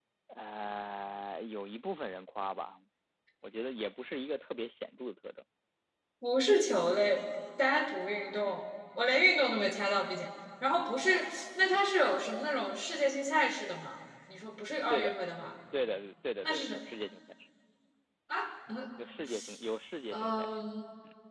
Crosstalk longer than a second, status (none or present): none